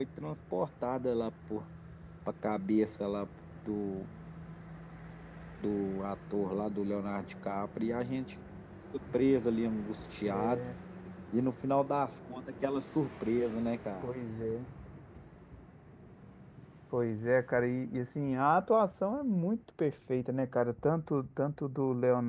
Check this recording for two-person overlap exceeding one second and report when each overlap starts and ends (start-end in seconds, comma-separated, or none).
none